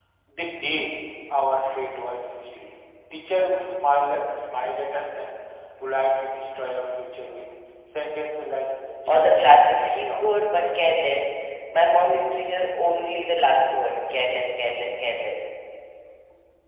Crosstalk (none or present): present